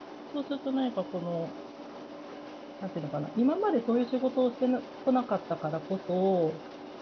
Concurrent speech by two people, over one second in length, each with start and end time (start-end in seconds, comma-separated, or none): none